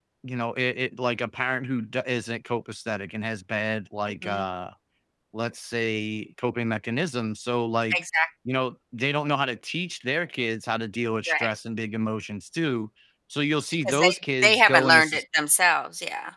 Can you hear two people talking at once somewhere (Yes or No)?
Yes